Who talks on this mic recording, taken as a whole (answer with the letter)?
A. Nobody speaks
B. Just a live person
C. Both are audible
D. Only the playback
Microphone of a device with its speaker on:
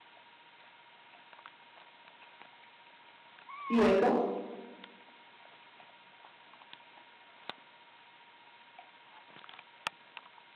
B